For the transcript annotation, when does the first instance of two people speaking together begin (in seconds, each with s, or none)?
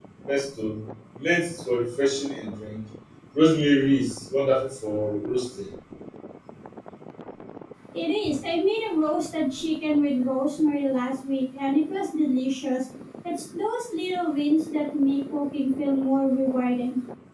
none